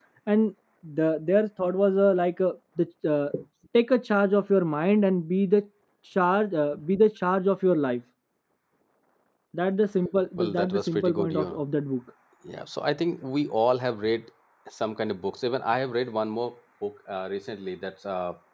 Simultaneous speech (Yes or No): Yes